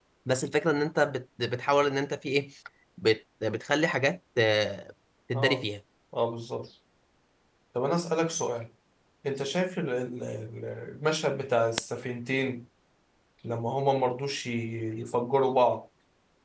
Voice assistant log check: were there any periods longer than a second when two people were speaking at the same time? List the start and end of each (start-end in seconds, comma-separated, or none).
none